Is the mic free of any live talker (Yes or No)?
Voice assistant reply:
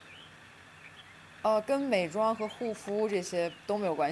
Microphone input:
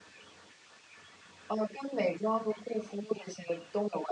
Yes